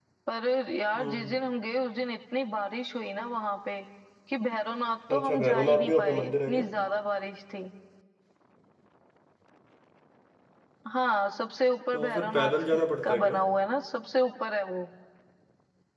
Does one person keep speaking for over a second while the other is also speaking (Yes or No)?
Yes